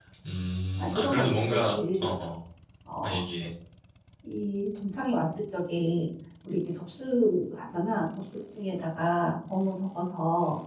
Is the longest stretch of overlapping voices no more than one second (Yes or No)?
No